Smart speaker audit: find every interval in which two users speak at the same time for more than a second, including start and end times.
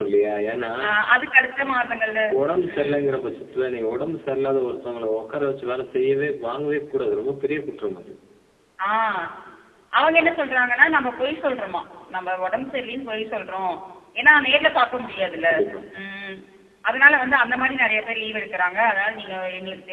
none

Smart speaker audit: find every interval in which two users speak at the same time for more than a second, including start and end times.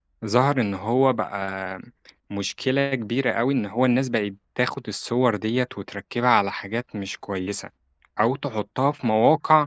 none

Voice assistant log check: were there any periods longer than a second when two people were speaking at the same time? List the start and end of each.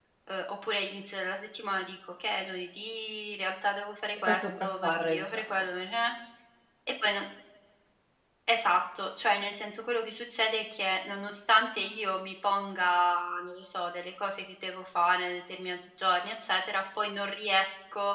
4.3-5.6

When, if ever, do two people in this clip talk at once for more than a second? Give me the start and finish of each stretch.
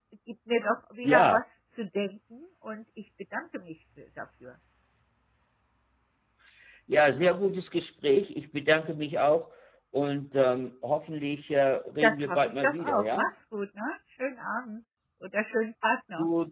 12.0-13.3

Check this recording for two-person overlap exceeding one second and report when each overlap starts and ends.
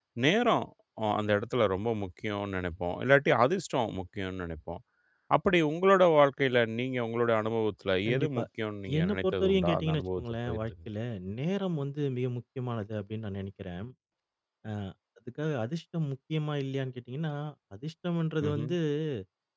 9.0-10.7

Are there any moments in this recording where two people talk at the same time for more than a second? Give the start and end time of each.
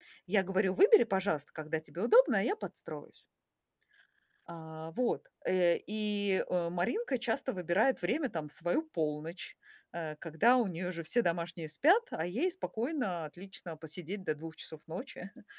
none

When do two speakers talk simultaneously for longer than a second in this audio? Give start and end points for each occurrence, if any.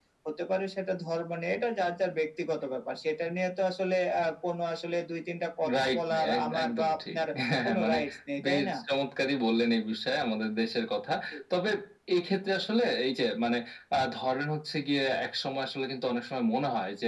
5.8-7.2

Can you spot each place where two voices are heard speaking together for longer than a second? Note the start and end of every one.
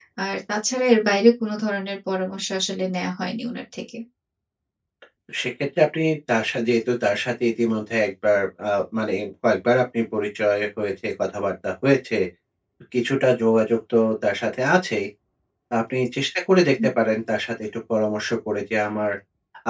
none

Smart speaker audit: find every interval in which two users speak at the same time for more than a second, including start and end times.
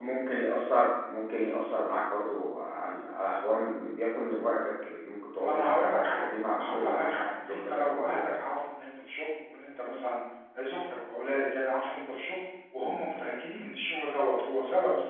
5.4-8.3

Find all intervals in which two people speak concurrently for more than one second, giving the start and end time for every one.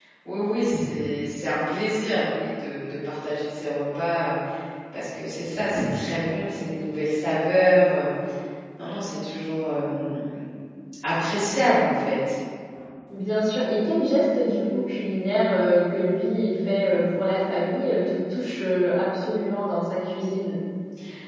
none

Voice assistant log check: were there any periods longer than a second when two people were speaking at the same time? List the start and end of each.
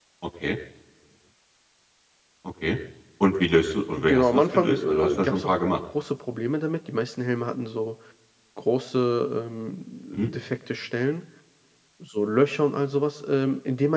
4.0-5.6

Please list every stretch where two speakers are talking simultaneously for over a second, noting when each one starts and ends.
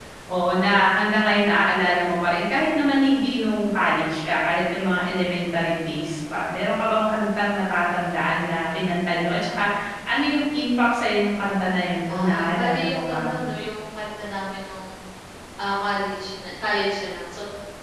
12.1-13.3

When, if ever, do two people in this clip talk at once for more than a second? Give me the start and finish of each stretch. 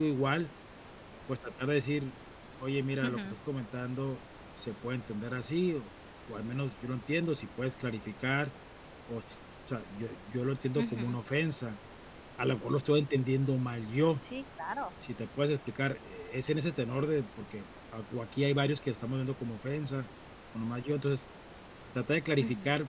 none

